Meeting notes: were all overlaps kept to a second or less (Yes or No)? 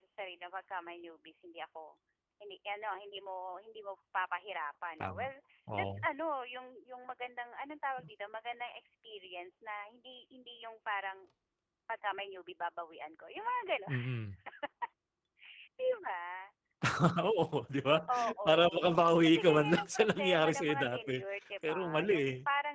No